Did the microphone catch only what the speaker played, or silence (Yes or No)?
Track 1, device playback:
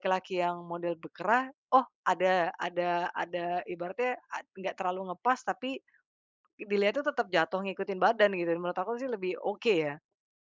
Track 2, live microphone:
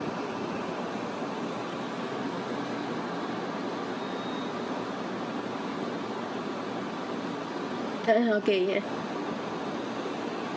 No